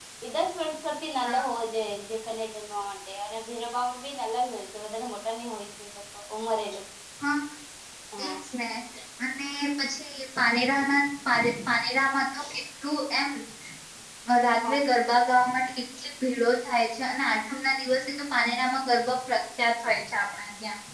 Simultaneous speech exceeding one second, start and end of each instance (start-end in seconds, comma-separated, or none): none